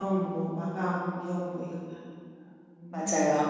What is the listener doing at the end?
taking over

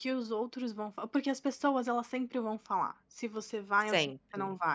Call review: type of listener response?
listening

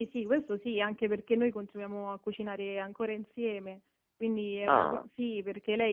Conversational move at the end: listening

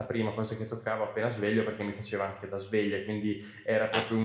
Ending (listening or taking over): listening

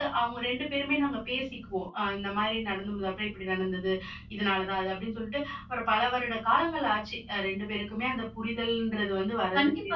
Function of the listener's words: taking over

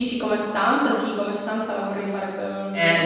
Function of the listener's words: taking over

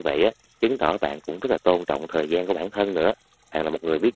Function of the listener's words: listening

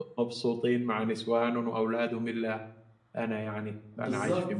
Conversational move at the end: taking over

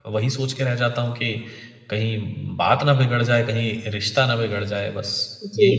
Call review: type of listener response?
taking over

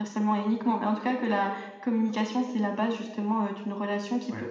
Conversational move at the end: listening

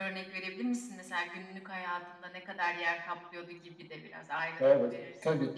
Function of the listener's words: taking over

